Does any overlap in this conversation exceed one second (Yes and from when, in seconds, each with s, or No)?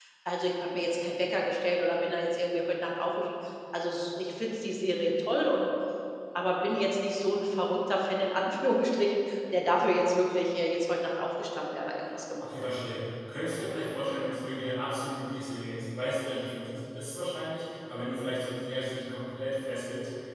No